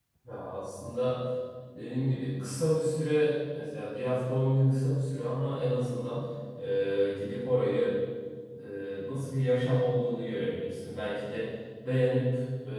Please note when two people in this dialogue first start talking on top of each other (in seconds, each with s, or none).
none